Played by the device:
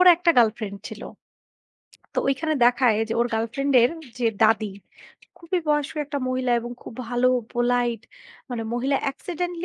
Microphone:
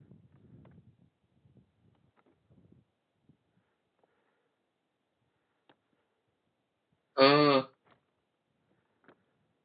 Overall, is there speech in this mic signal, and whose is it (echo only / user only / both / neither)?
user only